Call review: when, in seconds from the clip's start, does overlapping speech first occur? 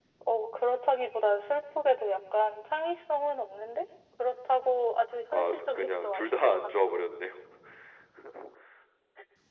5.3 s

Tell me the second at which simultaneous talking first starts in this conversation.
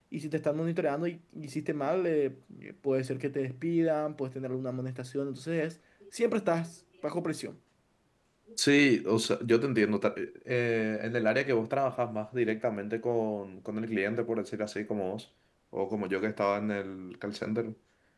none

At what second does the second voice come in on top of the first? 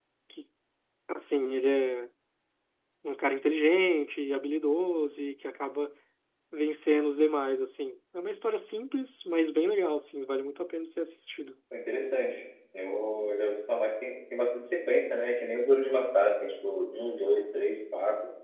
none

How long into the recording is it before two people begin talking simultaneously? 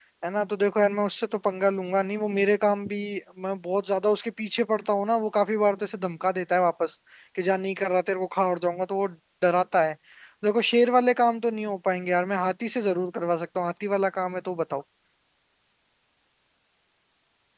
none

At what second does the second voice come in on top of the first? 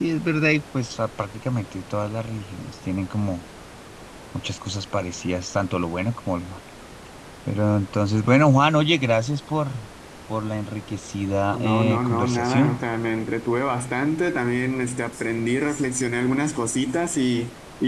11.5 s

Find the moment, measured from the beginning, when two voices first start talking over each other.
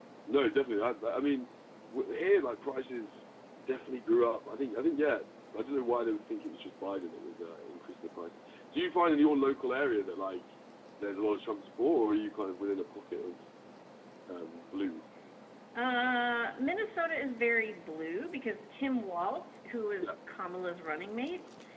none

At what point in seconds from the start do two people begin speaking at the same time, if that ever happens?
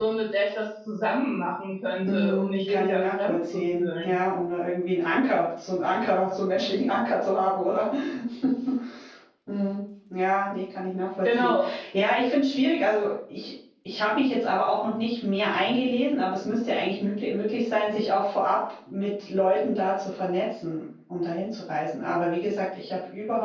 2.0 s

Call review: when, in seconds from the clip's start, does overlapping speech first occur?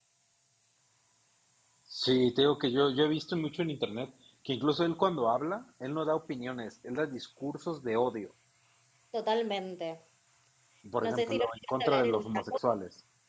11.0 s

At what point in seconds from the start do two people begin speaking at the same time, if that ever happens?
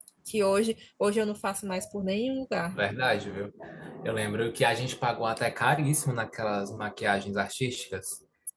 none

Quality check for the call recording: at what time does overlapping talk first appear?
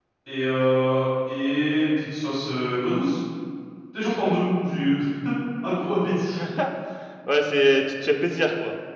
none

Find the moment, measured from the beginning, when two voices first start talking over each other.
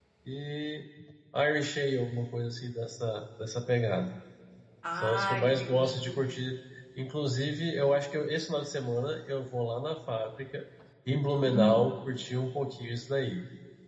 5.0 s

